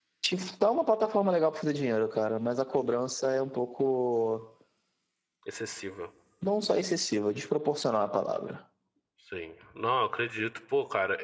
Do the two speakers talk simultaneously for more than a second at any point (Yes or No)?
No